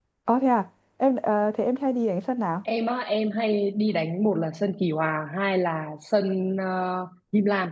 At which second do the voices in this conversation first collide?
none

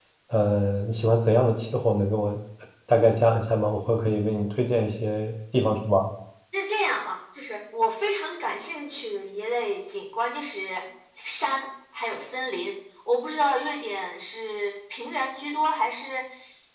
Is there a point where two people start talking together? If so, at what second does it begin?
none

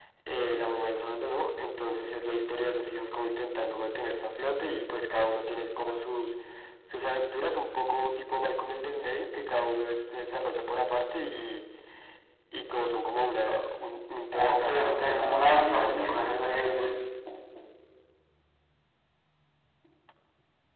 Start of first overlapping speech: 14 s

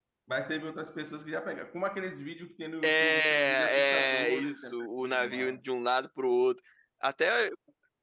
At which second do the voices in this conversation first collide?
3 s

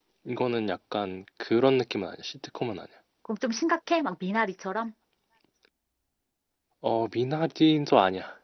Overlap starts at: none

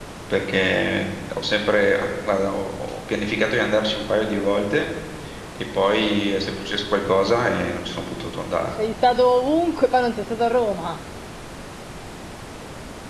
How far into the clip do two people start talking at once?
none

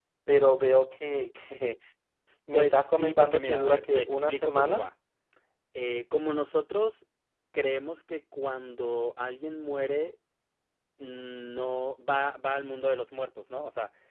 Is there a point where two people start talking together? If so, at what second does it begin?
3 s

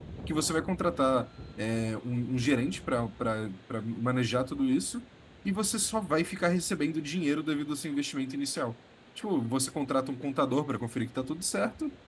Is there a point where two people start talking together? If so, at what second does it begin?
none

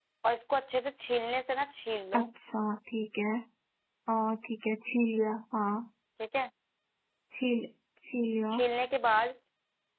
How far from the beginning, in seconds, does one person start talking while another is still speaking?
none

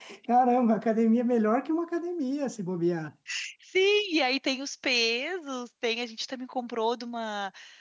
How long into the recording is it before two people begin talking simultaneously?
none

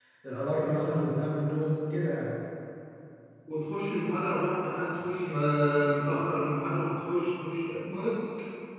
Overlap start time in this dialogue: none

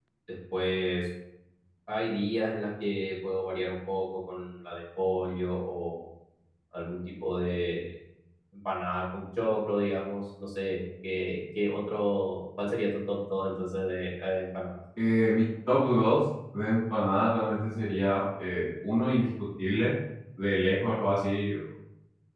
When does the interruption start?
none

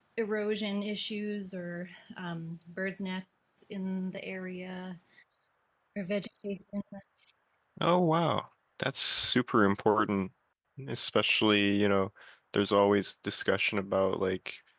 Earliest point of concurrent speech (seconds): none

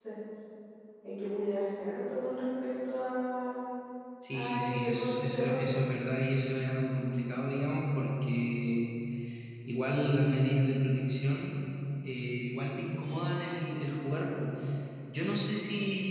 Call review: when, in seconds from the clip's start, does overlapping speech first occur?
4 s

